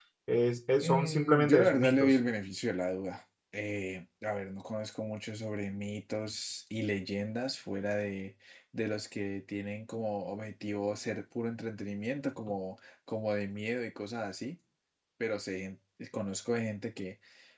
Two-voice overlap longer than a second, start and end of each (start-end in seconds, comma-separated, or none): 0.8-2.2